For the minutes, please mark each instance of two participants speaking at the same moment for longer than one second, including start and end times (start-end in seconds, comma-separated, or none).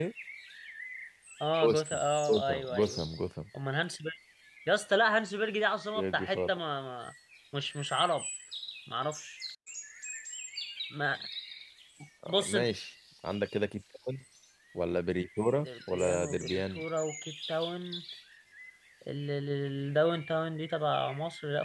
1.6-3.0, 15.6-16.8